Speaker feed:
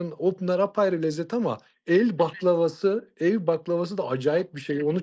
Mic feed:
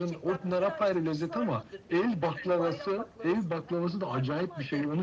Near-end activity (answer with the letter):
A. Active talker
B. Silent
A